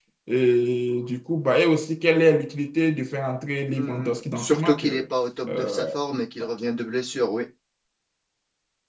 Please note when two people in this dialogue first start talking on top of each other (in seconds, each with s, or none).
3.7 s